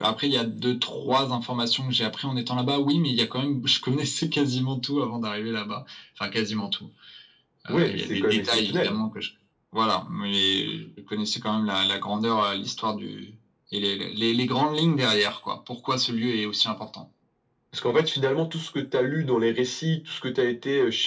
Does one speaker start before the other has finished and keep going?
Yes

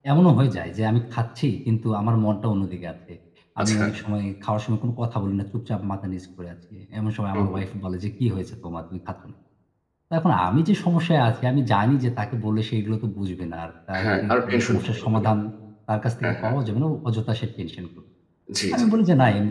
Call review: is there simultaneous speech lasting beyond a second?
Yes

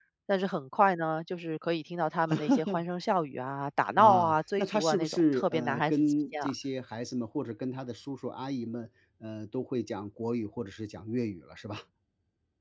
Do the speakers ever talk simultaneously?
Yes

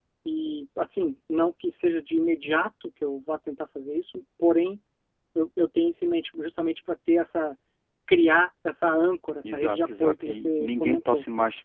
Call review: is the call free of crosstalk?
No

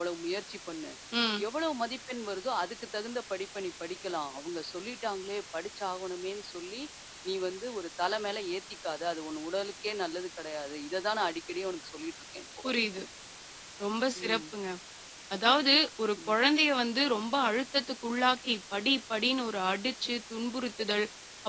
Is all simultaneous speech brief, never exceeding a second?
Yes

